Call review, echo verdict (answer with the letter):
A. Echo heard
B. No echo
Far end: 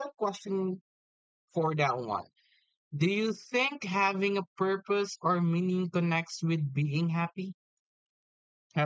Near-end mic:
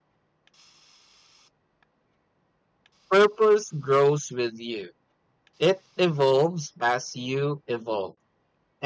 B